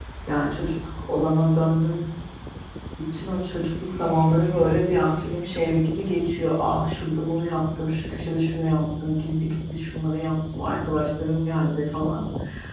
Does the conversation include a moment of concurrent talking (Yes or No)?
No